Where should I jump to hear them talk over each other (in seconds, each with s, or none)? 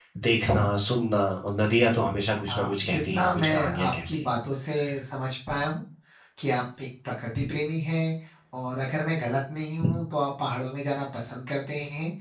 2.5 s